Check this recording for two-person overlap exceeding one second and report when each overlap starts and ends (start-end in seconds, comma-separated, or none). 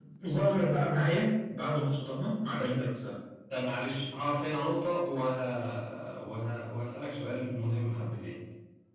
none